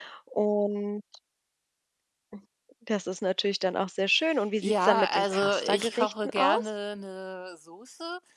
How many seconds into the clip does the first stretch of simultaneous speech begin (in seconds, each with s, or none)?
4.6 s